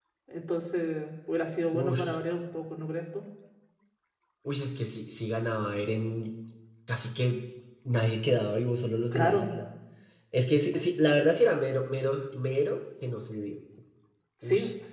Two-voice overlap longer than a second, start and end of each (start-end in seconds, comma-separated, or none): none